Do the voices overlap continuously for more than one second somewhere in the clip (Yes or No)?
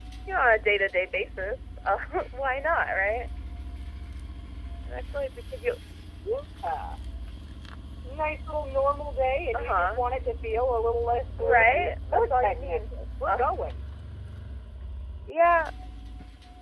Yes